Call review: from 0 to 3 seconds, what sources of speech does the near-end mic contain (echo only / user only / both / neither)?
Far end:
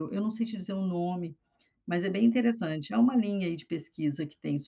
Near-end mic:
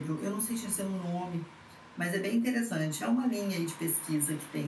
echo only